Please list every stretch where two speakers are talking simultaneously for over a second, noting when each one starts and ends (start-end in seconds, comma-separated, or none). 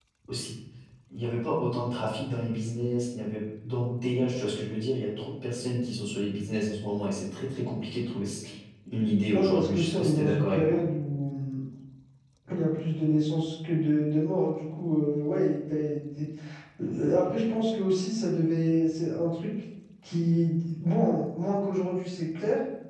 9.3-10.8